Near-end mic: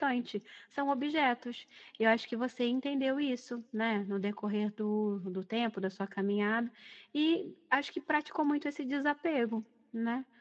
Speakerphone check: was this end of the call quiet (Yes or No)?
No